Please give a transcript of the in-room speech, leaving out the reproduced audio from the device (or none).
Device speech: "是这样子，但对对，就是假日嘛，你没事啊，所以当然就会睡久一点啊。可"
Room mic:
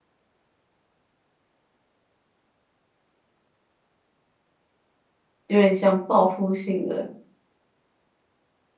有点像报复性的